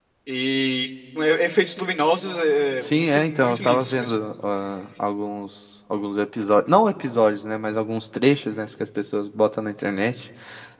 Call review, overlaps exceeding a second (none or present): present